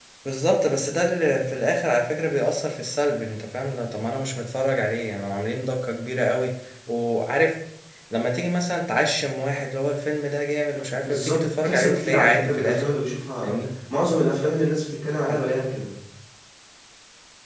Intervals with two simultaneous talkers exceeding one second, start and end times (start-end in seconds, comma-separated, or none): 11.1-12.9